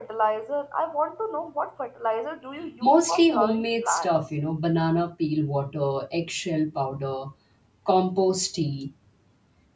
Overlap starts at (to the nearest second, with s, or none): 3 s